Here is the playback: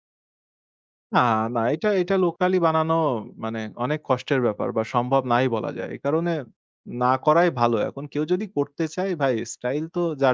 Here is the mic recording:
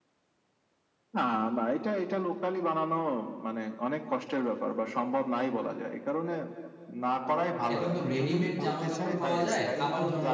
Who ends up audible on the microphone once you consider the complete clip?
both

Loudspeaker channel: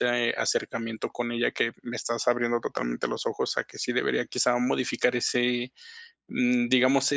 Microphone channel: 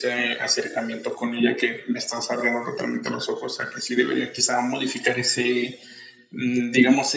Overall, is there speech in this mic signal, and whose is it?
echo only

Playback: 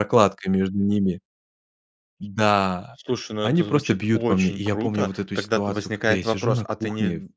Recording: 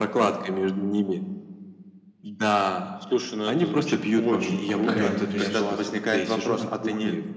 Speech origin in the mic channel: both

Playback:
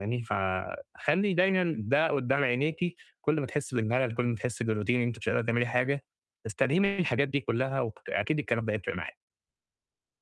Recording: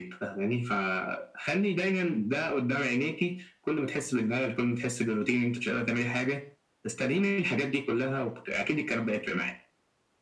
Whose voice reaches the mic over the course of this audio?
echo only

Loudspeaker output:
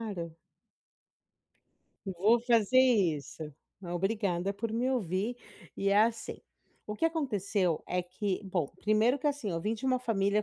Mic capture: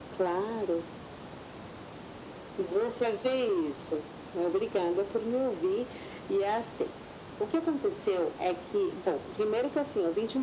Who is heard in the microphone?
echo only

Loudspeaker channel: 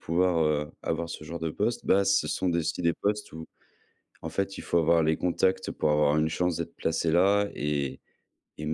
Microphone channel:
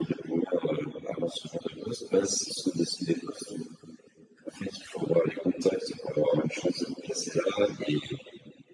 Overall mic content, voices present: echo only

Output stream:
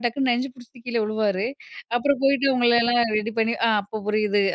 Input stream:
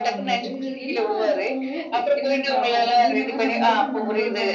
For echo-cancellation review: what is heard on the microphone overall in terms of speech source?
both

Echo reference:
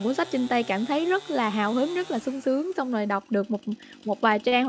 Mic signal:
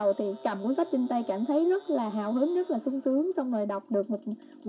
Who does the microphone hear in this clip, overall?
echo only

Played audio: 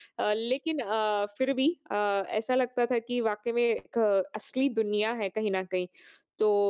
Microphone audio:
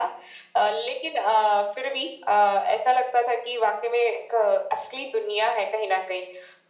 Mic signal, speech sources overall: echo only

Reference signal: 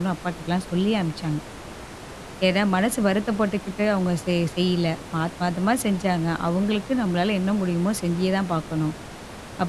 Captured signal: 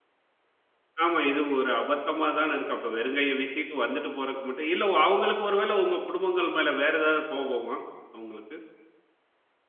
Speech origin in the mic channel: user only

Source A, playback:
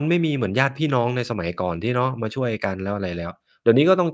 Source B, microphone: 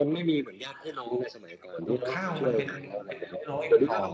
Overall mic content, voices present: both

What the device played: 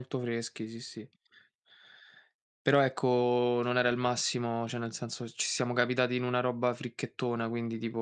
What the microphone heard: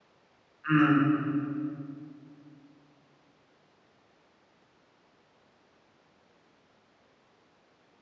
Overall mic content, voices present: user only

